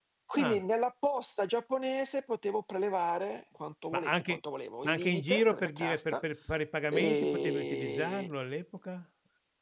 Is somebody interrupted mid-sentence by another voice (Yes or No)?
Yes